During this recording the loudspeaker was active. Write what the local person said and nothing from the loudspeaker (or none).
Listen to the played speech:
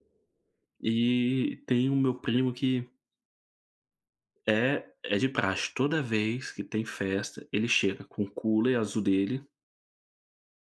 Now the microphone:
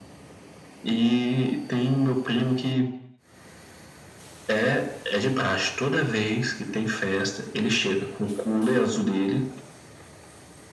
none